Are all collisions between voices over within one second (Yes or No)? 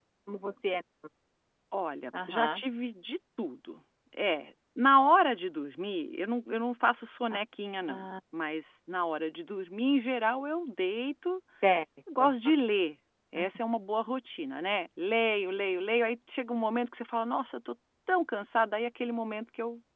Yes